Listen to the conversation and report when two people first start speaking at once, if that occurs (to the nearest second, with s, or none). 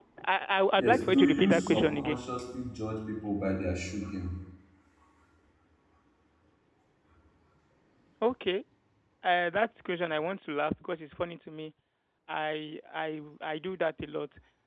1 s